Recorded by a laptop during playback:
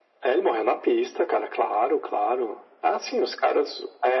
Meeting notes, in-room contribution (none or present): none